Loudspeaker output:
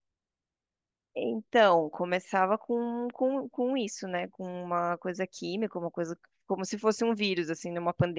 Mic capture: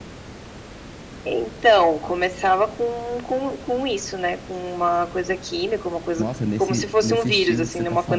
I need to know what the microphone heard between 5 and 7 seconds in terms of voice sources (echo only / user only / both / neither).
both